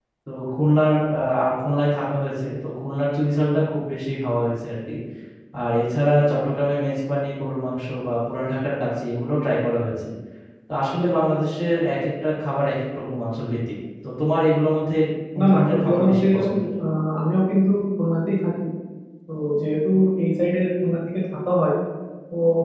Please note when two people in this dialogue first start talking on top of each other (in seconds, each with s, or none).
15.4 s